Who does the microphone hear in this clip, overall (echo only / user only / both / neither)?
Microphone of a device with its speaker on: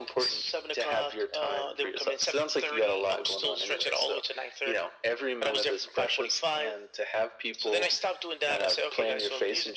echo only